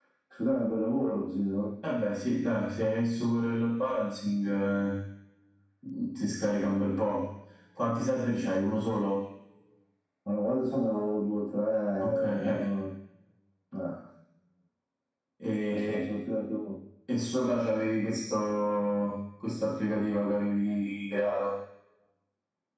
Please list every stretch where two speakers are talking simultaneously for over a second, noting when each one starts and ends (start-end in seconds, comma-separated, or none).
none